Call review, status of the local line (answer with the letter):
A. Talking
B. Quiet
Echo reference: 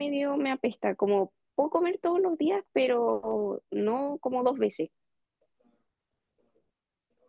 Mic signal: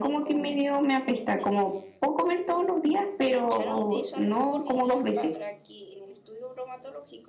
A